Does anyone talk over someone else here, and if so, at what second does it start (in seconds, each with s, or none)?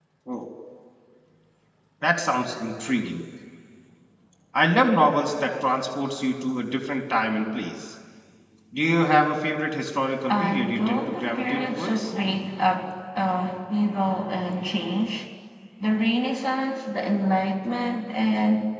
10.3 s